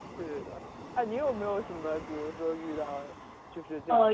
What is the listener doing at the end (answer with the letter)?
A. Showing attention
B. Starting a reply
B